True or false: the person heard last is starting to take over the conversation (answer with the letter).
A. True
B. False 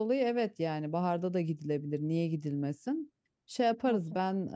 B